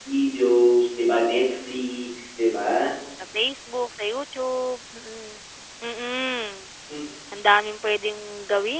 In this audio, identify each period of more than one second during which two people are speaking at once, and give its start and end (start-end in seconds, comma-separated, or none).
none